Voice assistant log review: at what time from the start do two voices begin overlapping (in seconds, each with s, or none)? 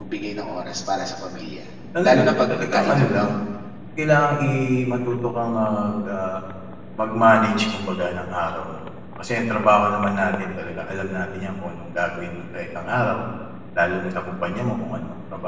2.0 s